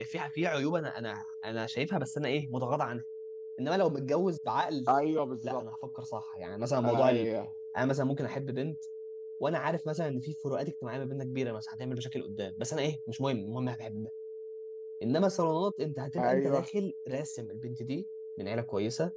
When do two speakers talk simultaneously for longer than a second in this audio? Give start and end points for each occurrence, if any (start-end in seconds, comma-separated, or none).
none